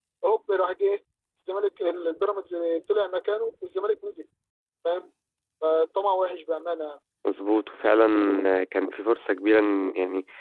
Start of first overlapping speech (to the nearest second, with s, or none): none